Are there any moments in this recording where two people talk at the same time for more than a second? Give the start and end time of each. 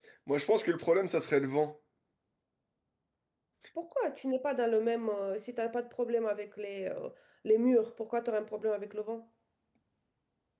none

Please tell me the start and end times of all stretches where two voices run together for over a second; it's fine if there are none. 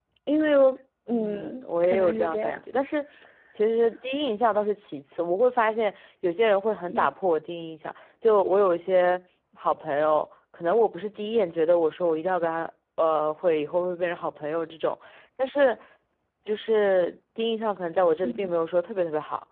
1.1-2.6

